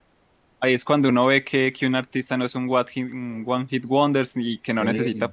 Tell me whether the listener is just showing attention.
Yes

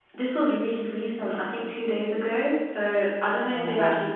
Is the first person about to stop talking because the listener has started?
No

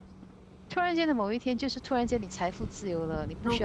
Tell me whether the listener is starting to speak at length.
No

